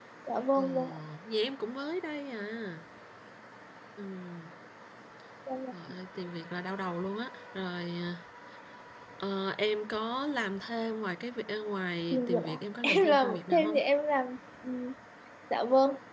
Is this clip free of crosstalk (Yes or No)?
No